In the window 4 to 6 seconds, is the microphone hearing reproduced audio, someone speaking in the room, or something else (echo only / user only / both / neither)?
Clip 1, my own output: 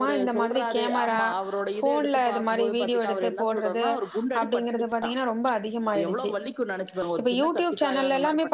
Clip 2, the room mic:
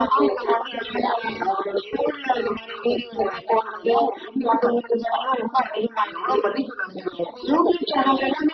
echo only